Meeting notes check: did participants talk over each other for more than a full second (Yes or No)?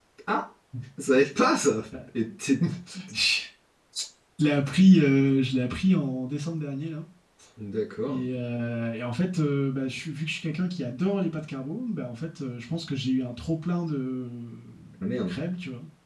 No